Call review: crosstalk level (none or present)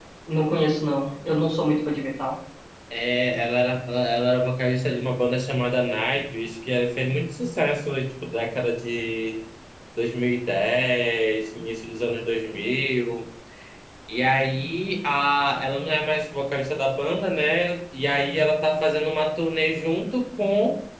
none